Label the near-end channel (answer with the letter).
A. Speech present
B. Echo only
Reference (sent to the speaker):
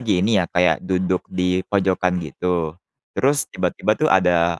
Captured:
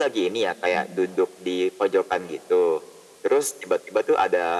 A